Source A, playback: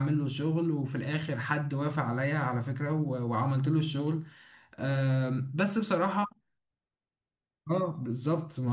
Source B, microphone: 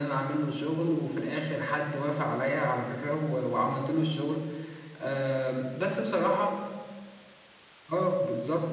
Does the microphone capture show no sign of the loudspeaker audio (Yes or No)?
No